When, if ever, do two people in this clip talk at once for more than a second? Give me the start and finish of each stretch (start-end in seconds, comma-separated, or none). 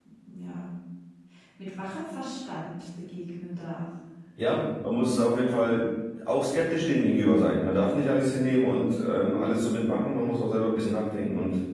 none